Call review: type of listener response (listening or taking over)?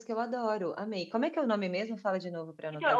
taking over